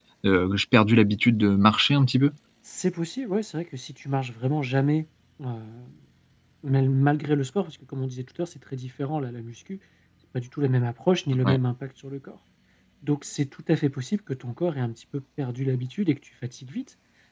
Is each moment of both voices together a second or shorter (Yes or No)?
Yes